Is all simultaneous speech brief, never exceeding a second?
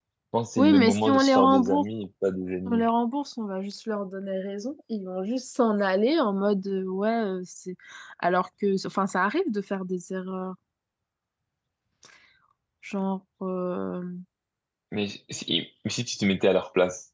No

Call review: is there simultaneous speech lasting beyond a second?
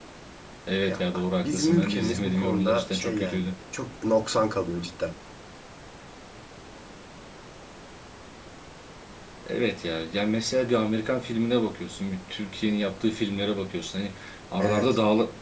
Yes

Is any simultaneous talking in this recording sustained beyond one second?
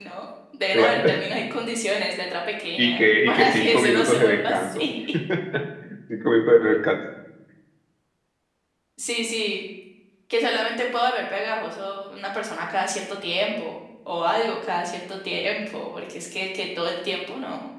Yes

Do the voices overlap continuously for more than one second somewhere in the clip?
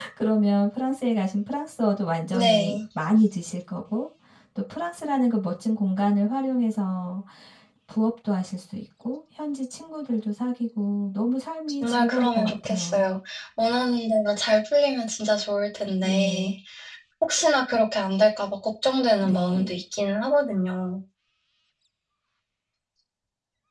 Yes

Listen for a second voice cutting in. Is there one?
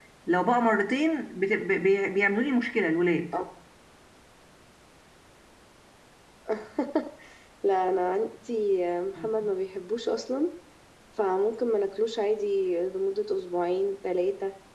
No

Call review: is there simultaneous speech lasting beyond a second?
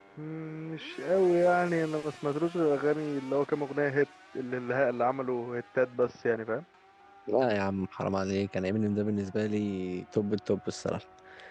No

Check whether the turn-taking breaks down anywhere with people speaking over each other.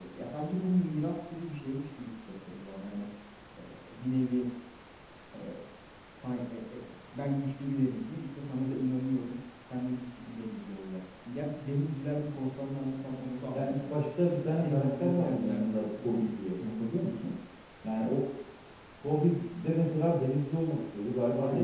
Yes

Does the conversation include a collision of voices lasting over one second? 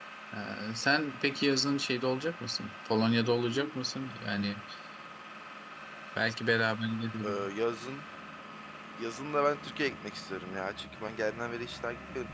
No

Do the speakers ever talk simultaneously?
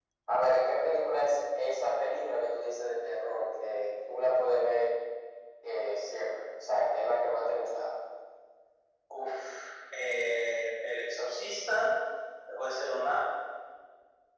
No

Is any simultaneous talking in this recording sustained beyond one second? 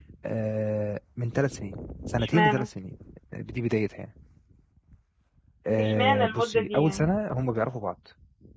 Yes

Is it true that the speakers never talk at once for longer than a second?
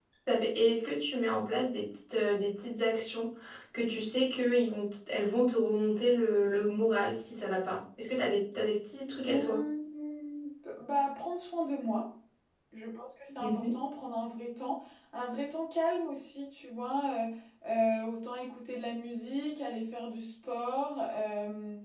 Yes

